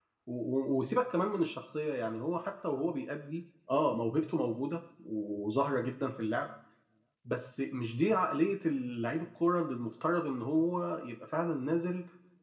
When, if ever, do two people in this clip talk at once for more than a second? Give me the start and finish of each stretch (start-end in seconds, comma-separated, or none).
none